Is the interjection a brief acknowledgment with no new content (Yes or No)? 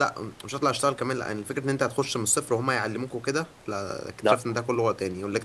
Yes